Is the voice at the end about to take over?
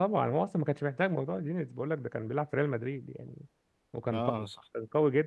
No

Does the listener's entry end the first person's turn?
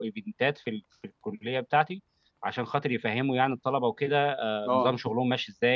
No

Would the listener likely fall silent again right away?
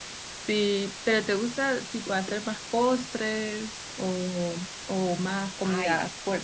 No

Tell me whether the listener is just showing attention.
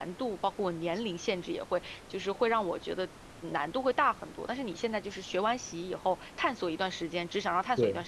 Yes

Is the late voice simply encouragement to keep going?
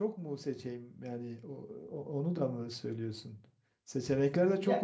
Yes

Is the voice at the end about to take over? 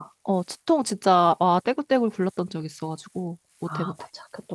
Yes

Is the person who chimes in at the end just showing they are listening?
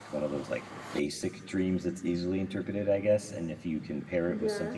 Yes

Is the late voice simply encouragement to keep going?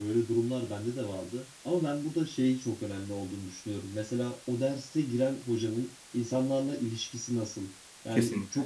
Yes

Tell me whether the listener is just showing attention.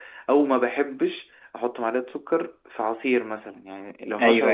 Yes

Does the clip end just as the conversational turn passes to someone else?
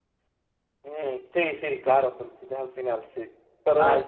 No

